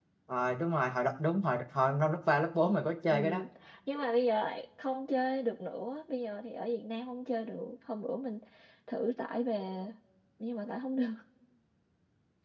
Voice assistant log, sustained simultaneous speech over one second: none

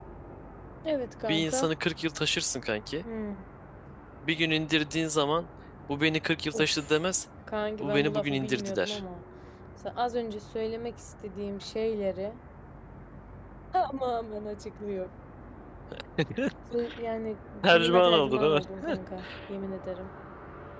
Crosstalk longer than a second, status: present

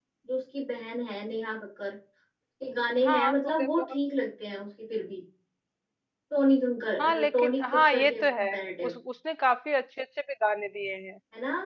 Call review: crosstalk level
present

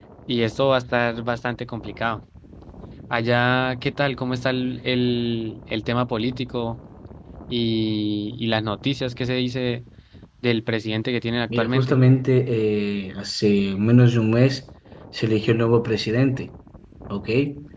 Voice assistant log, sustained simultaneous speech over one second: none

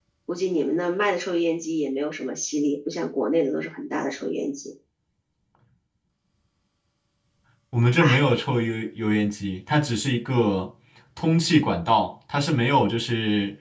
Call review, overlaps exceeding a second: none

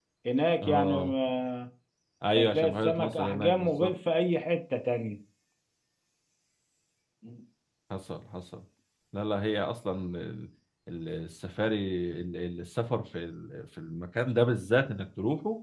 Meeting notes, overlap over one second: present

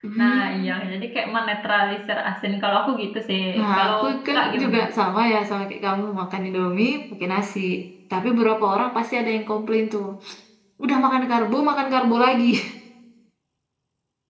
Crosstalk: present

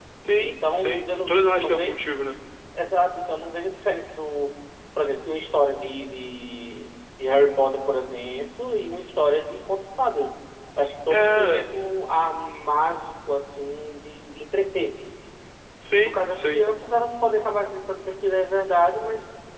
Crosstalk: present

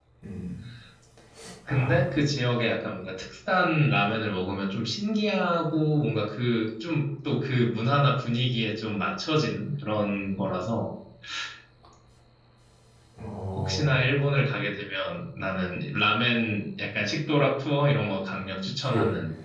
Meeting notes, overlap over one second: none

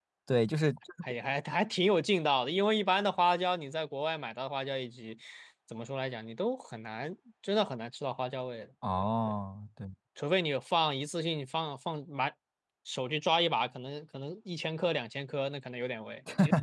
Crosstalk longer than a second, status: none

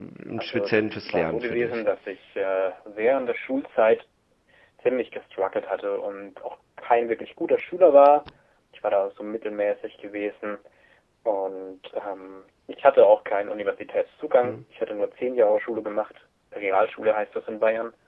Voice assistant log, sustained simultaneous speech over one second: present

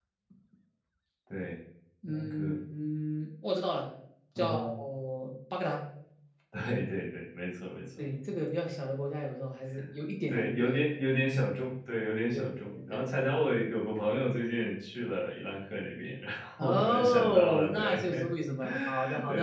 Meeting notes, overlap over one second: present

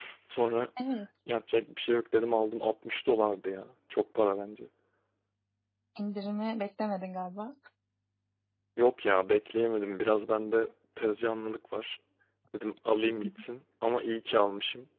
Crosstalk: none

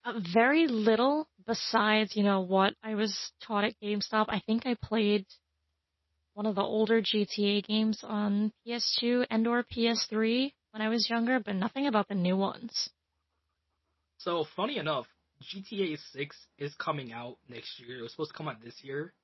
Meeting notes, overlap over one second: none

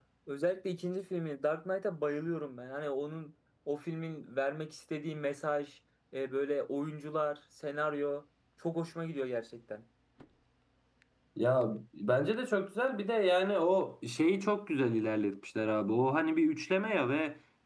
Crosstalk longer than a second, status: none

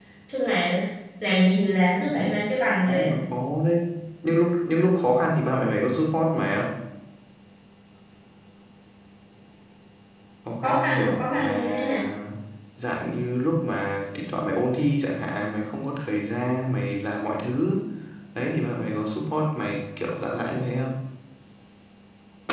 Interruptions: present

